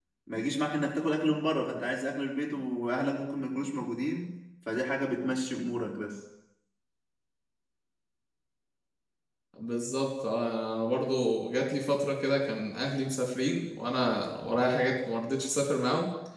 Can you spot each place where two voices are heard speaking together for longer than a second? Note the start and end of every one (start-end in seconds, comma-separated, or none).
none